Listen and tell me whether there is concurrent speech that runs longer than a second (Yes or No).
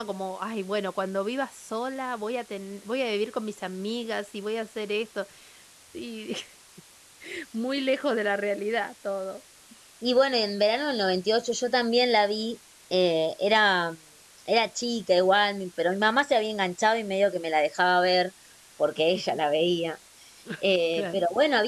No